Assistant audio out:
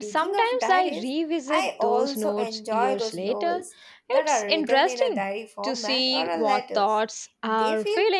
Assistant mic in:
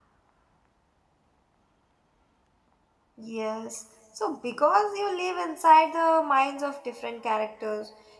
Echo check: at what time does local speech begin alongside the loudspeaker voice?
3.2 s

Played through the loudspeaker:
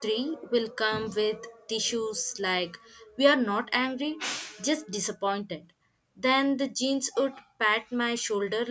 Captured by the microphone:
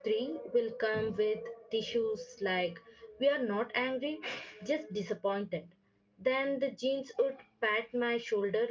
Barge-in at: none

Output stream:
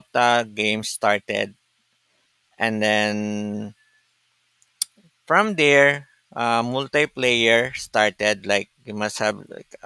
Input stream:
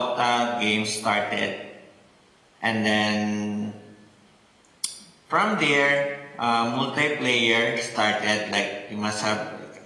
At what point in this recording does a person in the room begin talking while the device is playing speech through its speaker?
none

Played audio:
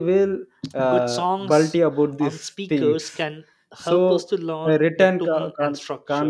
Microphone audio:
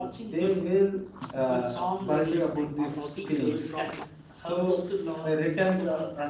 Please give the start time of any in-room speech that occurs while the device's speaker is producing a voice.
2.0 s

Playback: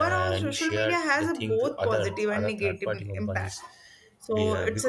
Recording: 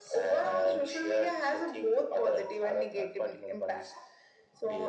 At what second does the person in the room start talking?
none

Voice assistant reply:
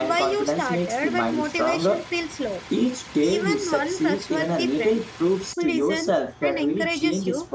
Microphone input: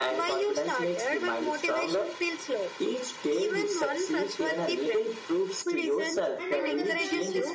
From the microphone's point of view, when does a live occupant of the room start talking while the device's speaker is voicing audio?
6.4 s

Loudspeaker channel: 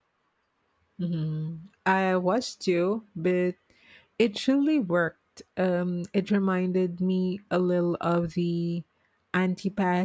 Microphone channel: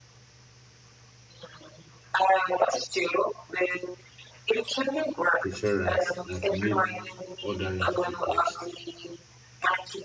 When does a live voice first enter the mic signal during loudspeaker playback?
5.4 s

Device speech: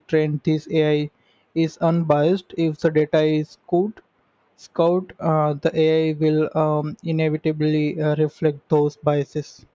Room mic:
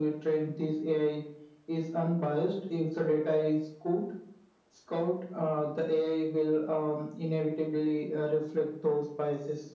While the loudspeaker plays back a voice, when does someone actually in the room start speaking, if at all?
none

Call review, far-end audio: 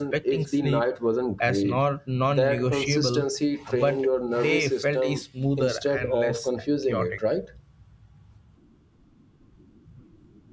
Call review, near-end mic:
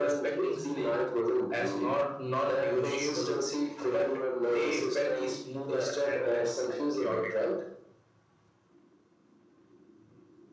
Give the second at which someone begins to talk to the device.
none

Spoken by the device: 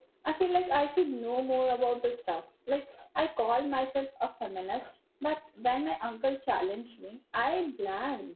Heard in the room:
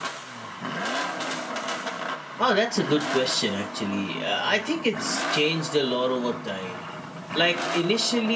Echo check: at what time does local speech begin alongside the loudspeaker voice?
2.4 s

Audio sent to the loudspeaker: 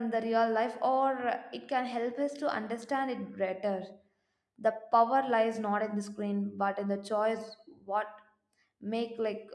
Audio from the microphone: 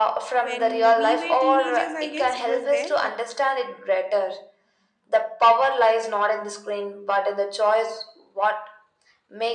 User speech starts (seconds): 0.4 s

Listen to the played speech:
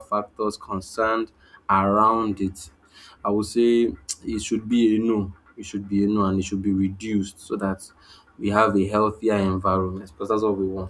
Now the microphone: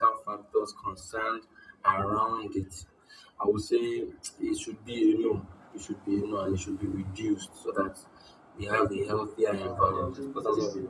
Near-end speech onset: 9.6 s

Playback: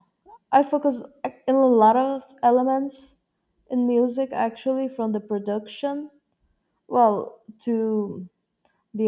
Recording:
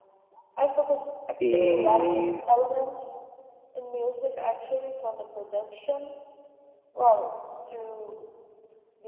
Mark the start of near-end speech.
1.4 s

